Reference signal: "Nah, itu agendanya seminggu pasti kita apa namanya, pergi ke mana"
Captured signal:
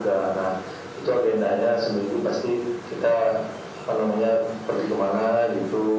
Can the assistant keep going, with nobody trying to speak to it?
Yes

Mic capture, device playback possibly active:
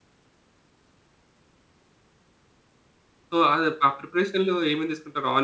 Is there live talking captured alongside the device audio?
Yes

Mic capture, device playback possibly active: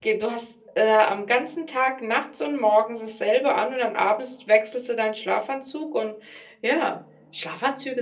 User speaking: Yes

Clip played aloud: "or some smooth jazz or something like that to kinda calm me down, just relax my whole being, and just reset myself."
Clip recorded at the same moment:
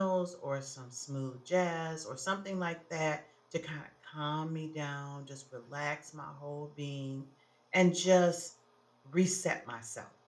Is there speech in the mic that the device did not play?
No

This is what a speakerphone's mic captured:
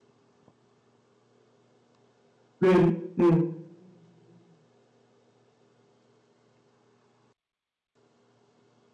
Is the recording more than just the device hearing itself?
Yes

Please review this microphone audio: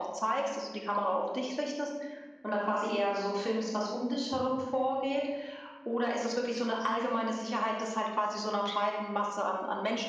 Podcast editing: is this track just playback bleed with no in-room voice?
Yes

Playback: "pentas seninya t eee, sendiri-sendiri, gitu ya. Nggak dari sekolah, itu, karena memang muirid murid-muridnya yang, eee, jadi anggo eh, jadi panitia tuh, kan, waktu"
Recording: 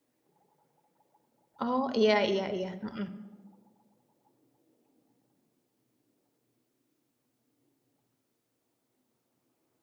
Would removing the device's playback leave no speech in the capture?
No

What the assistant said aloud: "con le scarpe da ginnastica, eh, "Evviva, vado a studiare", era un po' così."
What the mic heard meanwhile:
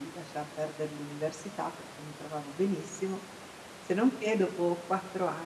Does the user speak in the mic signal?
Yes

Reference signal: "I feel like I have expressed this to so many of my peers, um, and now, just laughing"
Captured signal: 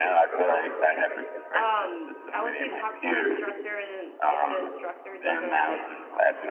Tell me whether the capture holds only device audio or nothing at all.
No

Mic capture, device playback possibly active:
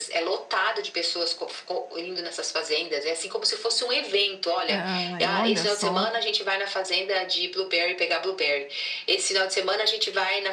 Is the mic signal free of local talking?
No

